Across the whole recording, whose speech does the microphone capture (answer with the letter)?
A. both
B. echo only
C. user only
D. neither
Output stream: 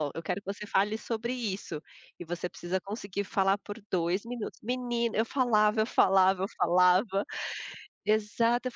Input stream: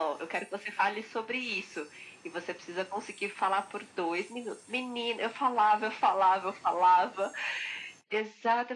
B